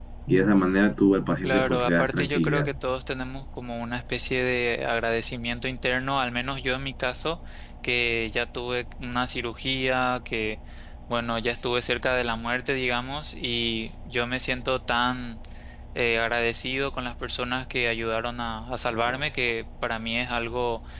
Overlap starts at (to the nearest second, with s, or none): 1 s